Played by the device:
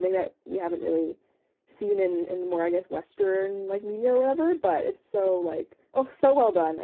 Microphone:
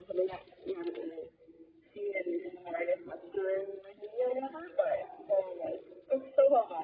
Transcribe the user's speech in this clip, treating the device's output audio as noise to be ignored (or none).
none